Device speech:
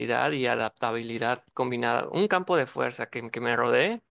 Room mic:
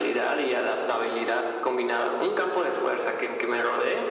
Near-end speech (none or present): none